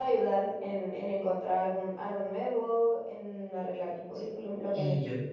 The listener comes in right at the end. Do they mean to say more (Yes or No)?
Yes